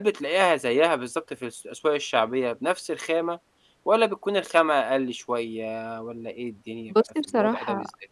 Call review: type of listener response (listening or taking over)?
taking over